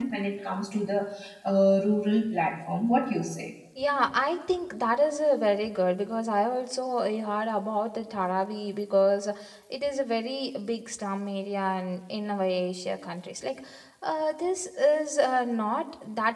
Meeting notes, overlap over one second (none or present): none